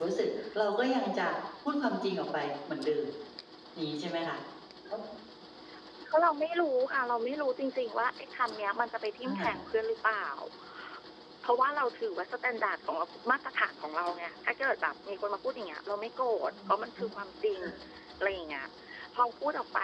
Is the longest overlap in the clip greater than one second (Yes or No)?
No